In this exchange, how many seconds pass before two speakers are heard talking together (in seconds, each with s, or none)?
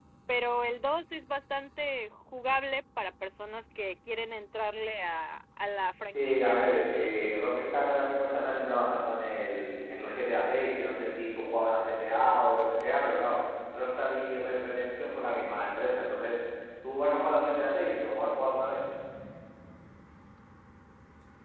6.1 s